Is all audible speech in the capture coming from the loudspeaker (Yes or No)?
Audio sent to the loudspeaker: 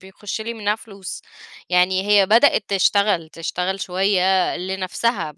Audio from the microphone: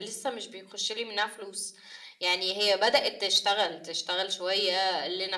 Yes